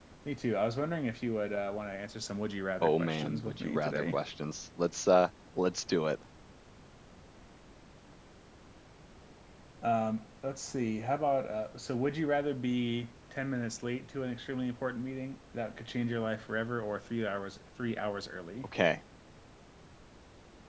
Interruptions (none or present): present